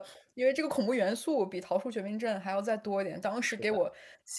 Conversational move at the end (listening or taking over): listening